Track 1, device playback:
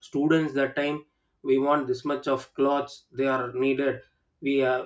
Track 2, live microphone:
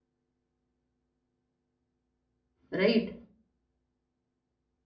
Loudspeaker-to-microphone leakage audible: No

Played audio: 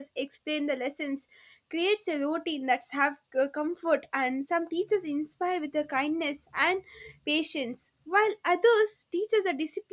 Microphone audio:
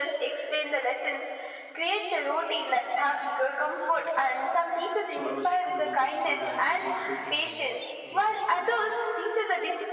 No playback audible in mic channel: No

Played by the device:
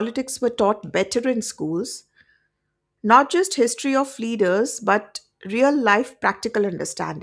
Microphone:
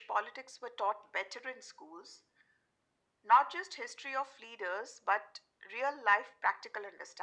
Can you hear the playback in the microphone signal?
Yes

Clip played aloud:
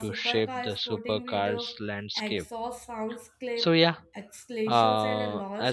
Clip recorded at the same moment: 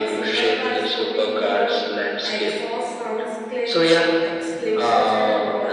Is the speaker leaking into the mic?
Yes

